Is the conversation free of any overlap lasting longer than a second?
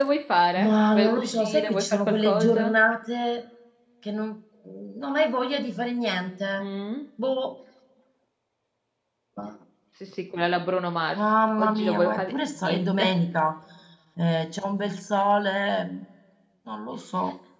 No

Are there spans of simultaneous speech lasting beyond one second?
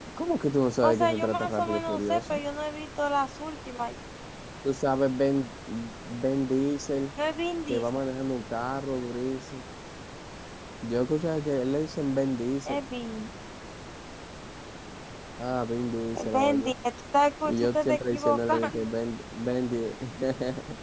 Yes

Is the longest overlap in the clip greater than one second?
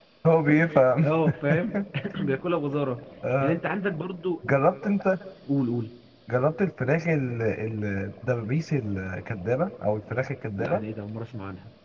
No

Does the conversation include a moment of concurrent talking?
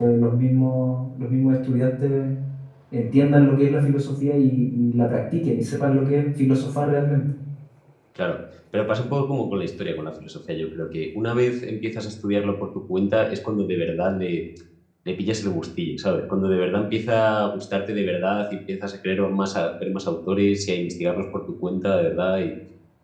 No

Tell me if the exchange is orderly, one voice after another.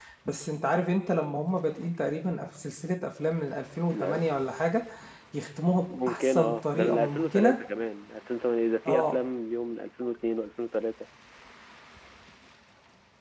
No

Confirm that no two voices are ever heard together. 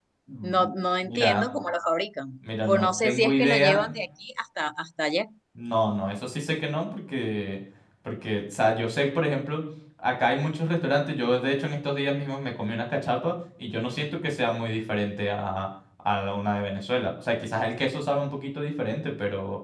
No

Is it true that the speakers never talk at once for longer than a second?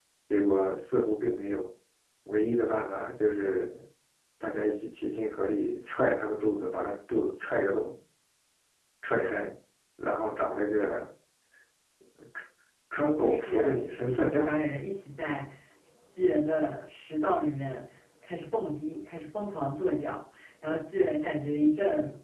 No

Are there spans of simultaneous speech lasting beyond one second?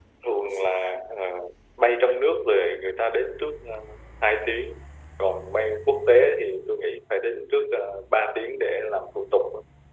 No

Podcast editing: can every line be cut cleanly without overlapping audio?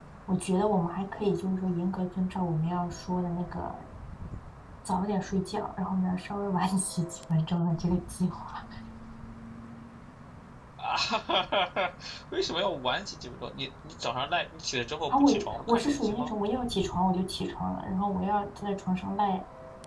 No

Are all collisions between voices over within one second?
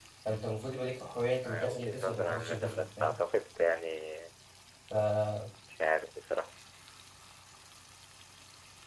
No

